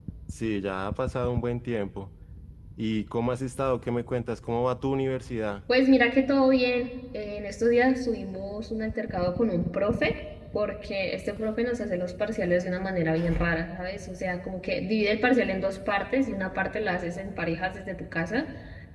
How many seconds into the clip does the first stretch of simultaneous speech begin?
none

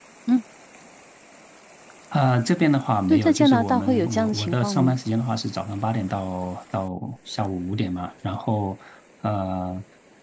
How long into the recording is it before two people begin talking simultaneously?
3.1 s

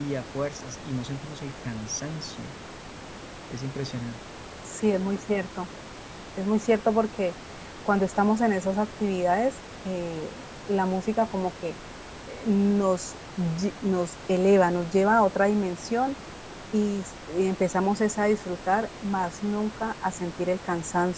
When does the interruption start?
none

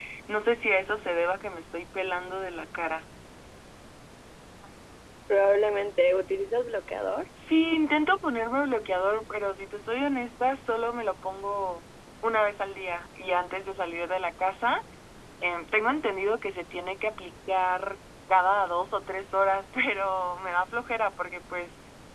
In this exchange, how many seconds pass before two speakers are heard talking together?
none

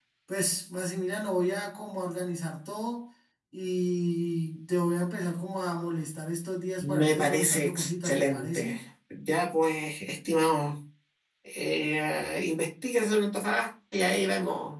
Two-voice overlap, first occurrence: 6.8 s

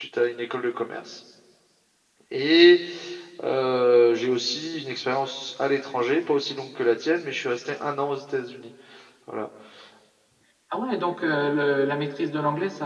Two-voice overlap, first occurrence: none

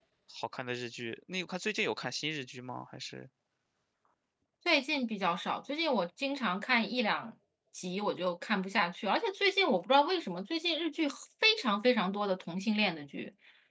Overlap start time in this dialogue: none

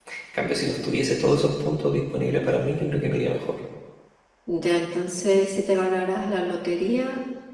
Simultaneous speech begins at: none

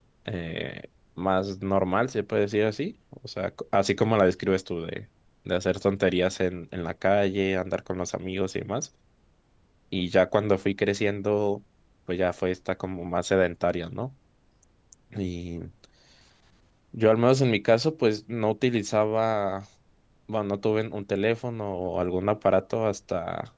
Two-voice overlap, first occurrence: none

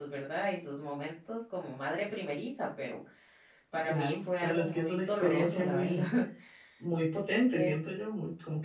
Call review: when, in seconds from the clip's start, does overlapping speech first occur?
3.8 s

